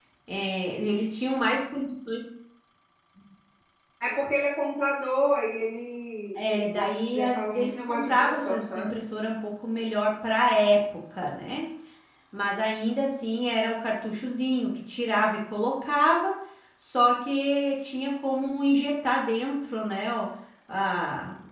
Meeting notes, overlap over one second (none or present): present